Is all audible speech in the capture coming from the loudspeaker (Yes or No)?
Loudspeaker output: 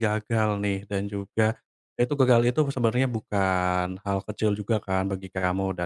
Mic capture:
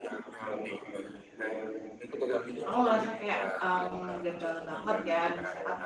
No